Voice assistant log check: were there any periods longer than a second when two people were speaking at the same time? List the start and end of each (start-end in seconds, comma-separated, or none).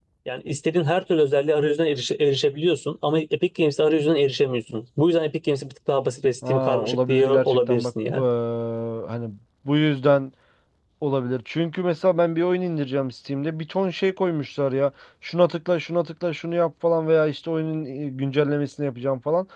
6.5-8.2